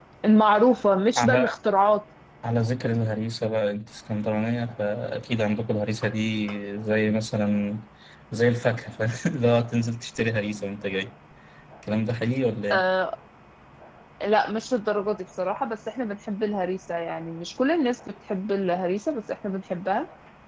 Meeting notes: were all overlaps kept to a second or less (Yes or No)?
Yes